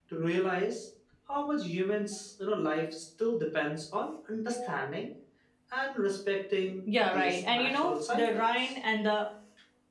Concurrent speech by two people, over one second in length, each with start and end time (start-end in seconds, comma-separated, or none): 7.1-8.7